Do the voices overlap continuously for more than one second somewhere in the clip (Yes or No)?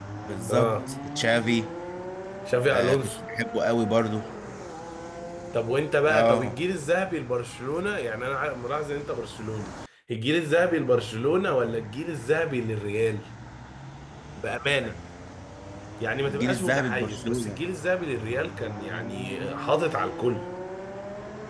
Yes